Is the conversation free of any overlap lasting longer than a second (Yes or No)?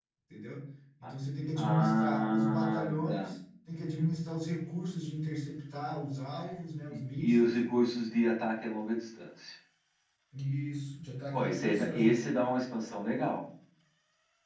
No